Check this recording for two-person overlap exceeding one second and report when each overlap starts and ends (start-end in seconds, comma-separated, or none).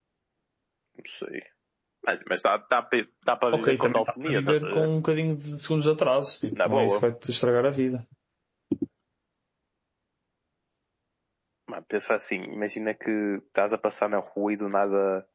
3.5-4.9